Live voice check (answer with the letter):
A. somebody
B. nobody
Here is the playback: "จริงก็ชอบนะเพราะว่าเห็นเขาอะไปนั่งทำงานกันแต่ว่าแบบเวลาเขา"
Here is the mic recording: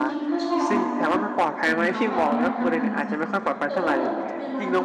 A